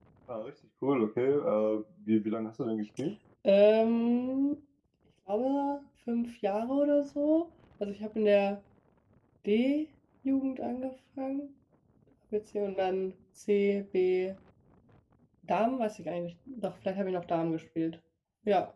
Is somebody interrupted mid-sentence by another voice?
No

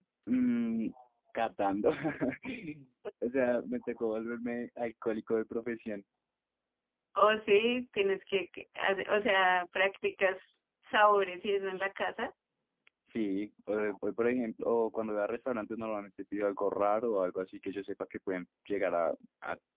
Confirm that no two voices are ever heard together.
Yes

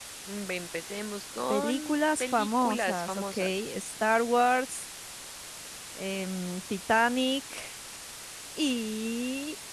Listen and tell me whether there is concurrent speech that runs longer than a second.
Yes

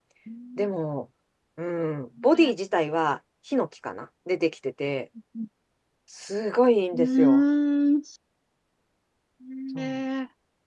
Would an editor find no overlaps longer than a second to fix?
Yes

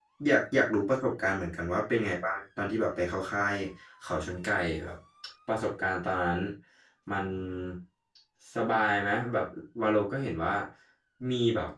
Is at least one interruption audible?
No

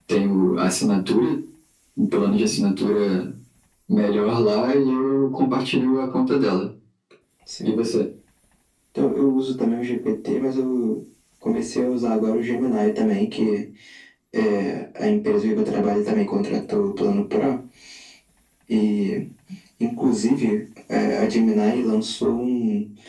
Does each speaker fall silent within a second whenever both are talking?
Yes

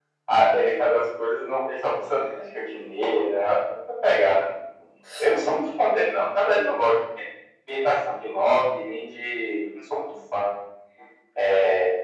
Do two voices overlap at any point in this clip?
No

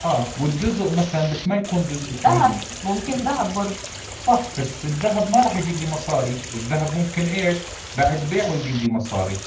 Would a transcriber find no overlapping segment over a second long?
Yes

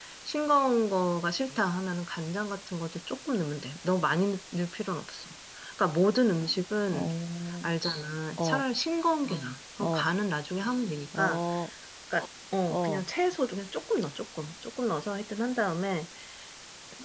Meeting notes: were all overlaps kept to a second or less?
Yes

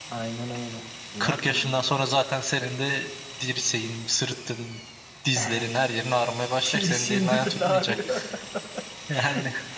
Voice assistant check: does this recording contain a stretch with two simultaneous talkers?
Yes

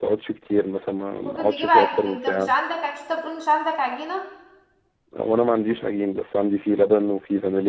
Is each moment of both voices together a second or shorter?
No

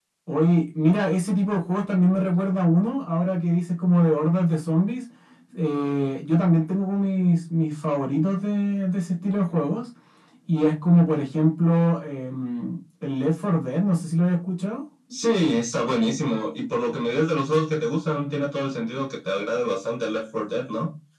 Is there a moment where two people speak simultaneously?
No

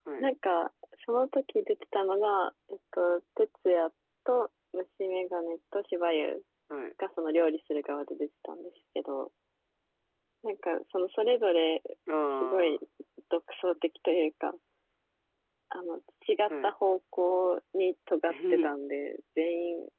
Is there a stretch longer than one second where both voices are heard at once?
No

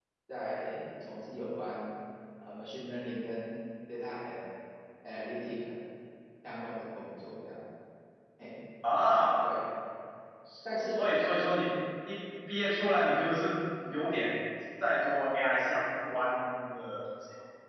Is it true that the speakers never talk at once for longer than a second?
Yes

